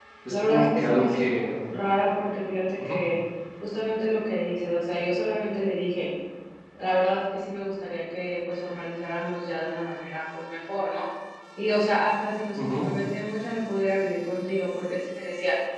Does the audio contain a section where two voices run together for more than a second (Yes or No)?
Yes